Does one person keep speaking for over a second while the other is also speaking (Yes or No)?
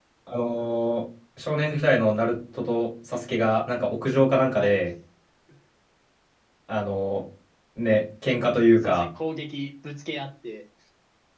No